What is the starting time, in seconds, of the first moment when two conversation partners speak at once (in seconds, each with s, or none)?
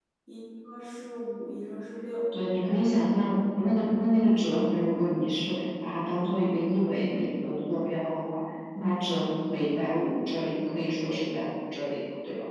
none